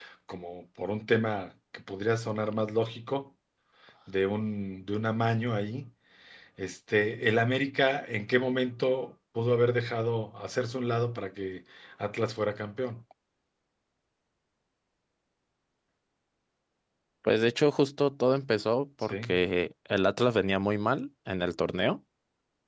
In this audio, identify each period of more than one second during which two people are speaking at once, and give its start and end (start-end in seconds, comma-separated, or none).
none